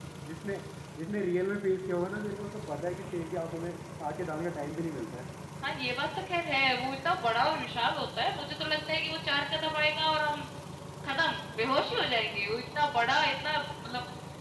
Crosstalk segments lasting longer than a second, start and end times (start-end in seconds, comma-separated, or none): none